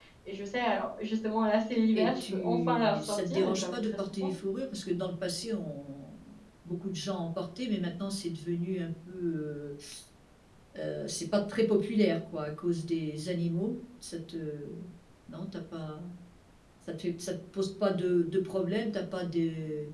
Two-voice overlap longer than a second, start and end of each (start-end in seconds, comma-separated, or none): 1.9-4.3